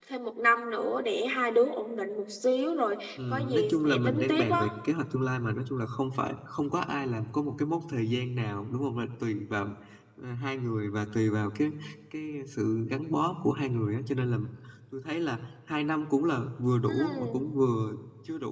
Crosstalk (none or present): present